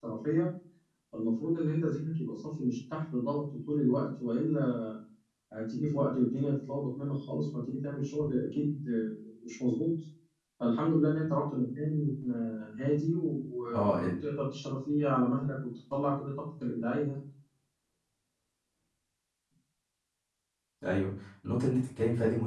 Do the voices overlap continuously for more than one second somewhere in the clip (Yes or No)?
No